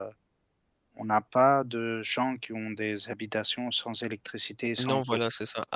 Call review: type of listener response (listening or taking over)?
taking over